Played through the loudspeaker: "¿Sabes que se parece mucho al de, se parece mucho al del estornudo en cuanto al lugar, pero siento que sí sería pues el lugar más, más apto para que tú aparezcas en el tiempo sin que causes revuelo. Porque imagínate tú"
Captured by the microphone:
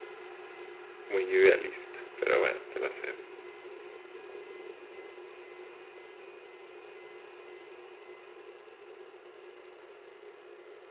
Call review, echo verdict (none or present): none